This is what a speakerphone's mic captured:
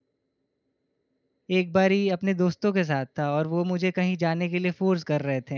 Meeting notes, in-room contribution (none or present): present